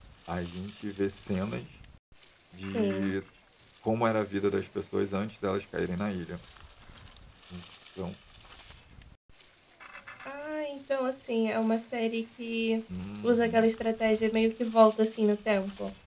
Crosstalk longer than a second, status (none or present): none